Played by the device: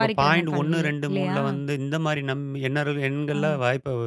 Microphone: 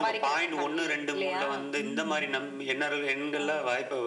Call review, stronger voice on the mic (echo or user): echo